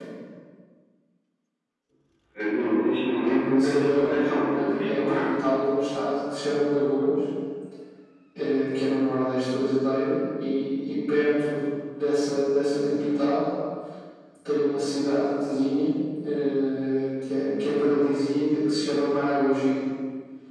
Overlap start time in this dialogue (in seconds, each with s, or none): 3.2 s